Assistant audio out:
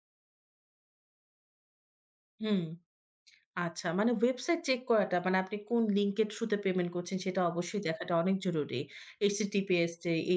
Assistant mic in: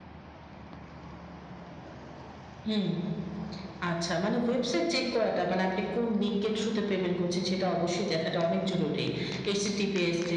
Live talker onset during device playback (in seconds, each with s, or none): none